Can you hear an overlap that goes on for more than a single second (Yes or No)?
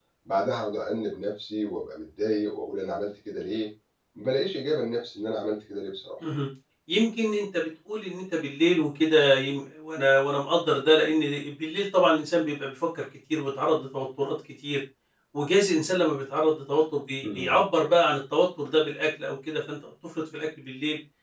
No